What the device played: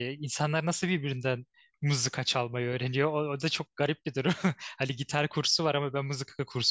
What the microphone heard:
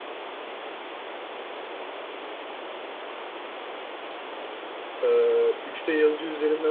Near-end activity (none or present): present